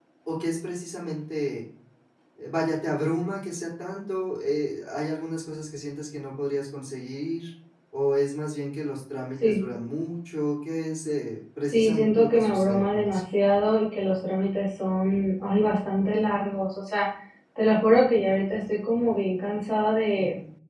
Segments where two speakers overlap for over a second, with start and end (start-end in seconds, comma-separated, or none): 11.7-13.2